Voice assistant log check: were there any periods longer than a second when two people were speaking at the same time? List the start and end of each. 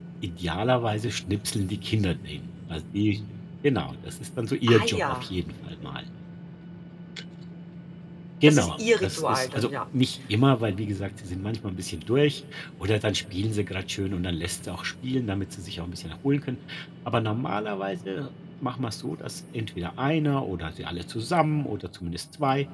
8.4-9.7

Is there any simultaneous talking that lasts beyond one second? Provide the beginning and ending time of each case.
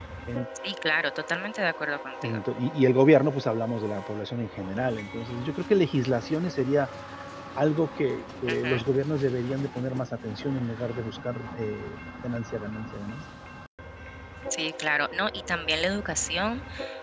none

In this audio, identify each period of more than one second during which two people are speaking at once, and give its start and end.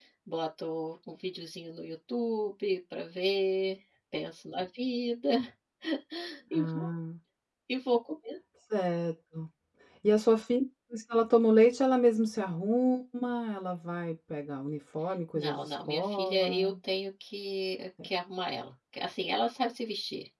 15.3-16.7

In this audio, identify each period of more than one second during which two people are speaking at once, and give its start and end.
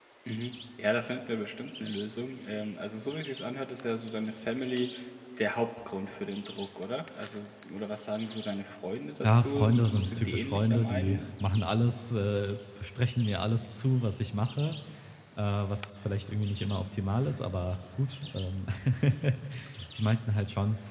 9.2-11.2

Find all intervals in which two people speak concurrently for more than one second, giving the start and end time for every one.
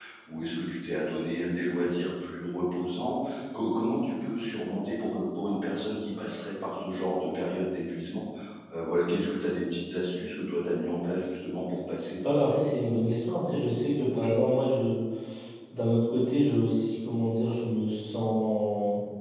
none

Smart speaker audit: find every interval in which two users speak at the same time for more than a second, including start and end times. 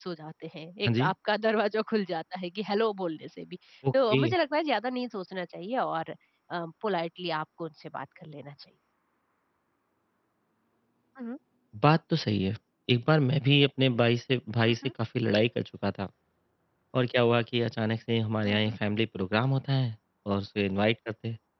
none

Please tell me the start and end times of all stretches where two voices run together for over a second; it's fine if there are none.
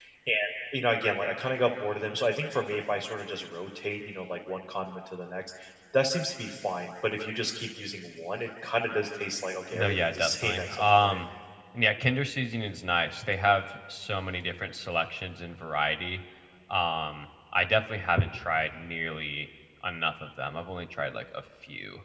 9.7-11.2

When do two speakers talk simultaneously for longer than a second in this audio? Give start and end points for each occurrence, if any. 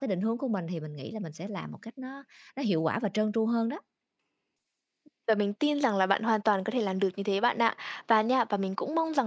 none

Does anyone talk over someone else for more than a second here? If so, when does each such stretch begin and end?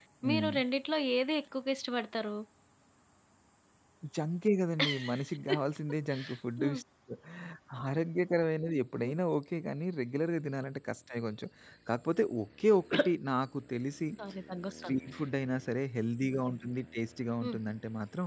none

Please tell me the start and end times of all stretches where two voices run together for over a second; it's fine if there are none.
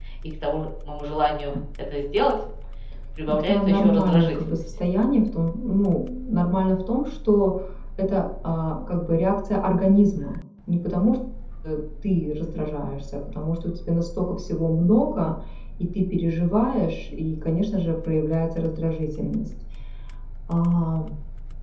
3.3-4.6

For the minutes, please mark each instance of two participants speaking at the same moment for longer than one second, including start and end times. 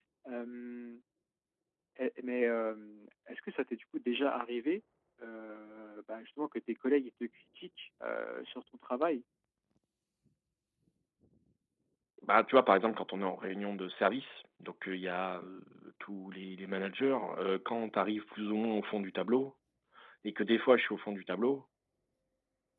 none

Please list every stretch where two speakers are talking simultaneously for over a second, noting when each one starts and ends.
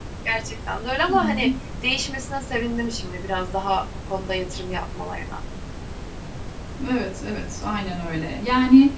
none

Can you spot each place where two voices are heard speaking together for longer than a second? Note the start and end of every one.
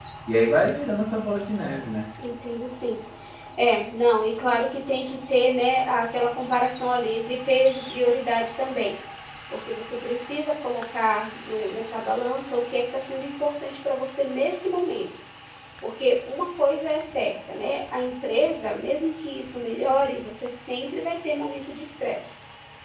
none

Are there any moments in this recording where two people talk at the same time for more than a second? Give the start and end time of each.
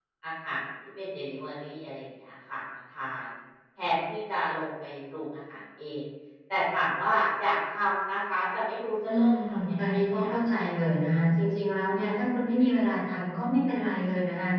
9.1-10.4

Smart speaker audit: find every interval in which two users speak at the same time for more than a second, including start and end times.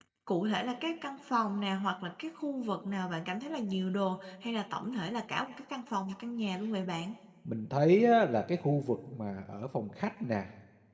none

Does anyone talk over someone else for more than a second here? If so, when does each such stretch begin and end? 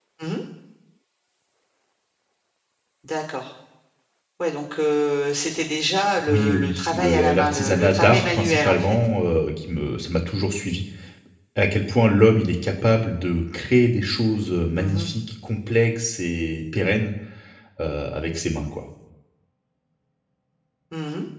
6.3-9.0

